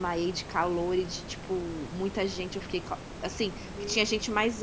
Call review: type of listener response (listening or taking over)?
listening